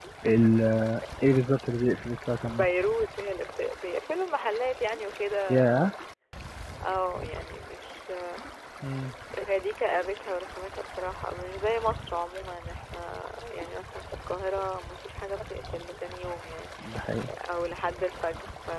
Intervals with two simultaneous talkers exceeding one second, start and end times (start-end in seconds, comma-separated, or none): none